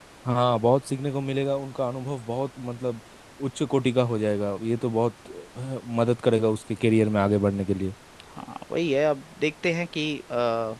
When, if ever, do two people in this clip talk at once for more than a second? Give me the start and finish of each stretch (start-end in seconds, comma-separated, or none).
none